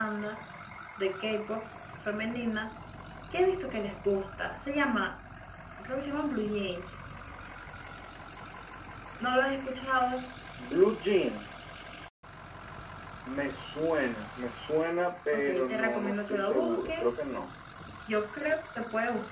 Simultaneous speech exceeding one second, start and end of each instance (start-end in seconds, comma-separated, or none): 15.3-17.1